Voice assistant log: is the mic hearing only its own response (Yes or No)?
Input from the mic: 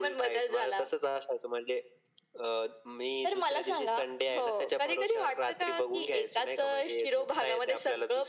Yes